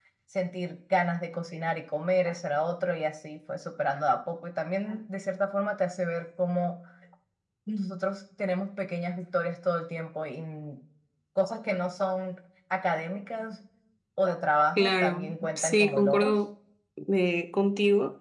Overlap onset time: 14.8 s

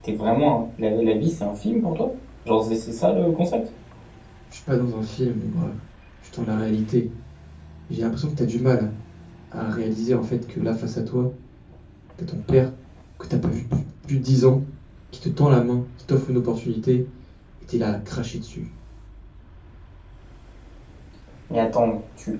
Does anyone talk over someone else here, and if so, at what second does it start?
none

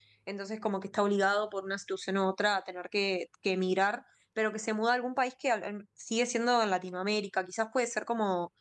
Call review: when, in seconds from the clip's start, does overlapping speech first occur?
none

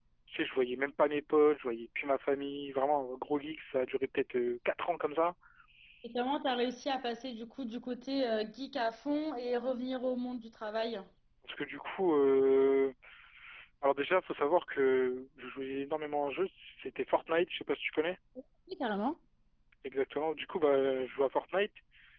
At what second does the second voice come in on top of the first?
none

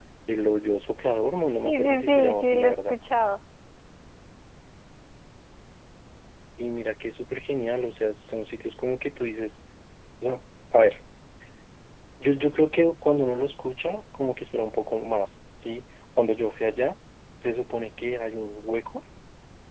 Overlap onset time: 1.6 s

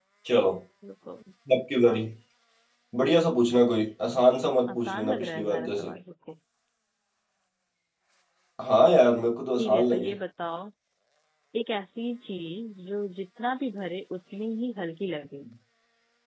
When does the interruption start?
4.7 s

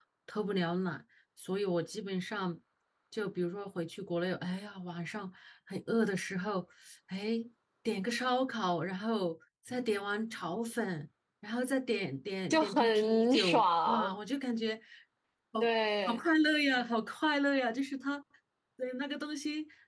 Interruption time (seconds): 12.5 s

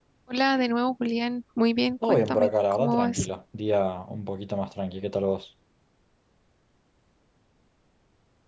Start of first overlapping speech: 2.0 s

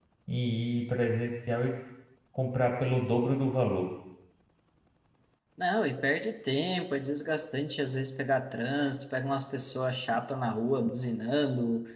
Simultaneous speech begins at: none

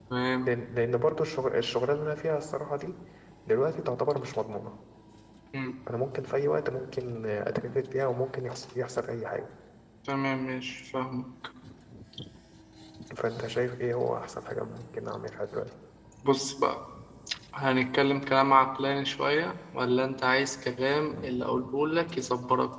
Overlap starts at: none

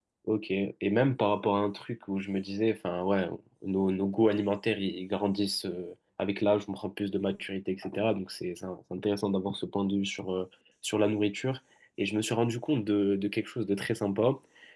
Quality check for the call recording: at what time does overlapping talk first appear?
none

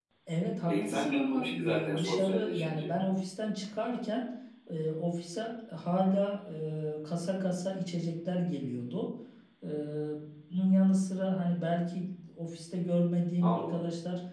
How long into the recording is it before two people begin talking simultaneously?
0.7 s

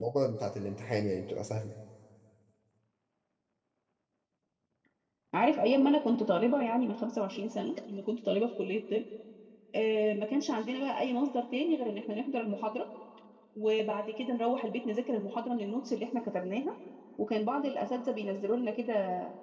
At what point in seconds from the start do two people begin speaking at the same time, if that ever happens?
none

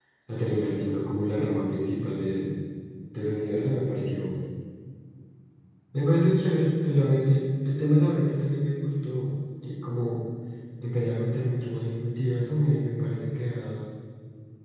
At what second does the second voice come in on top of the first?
none

